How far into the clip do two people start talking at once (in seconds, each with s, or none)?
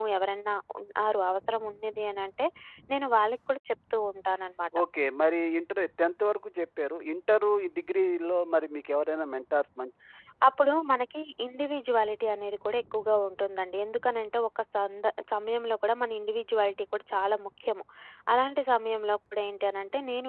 none